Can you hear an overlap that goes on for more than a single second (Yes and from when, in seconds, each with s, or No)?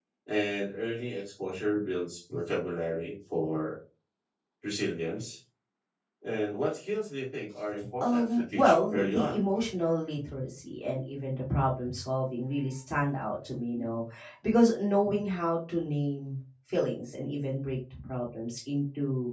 Yes, from 8.0 s